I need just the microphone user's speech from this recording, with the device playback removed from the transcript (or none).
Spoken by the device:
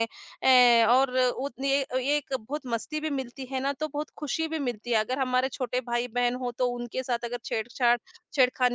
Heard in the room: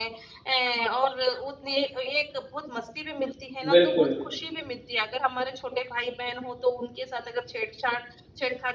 बिल्कुल,